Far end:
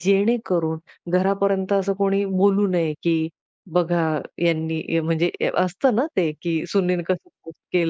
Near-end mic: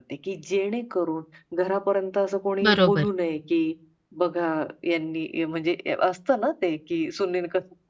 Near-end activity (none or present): present